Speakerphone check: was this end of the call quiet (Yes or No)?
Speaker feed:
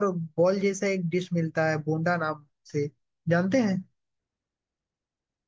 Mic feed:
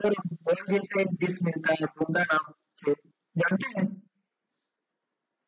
Yes